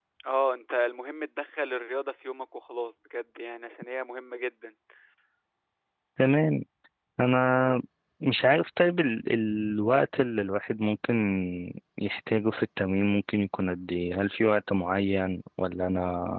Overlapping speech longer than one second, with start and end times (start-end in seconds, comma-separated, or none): none